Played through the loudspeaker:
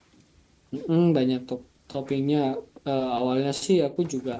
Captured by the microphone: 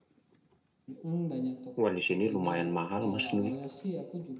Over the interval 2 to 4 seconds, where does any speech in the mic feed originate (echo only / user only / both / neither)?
both